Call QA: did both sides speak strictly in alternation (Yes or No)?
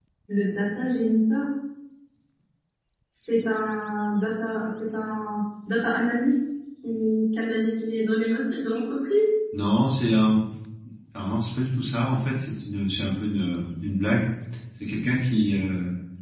Yes